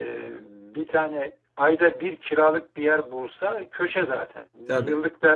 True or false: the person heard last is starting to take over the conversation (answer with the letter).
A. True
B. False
B